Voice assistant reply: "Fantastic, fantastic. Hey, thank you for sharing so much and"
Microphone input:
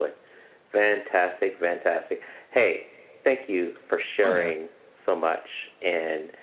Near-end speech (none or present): present